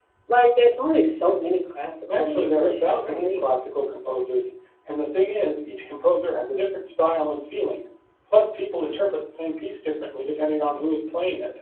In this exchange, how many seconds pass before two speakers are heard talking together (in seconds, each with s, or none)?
2.1 s